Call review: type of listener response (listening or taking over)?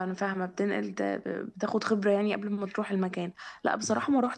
listening